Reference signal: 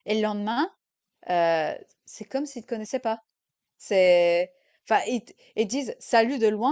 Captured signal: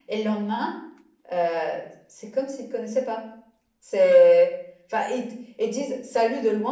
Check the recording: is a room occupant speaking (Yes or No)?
No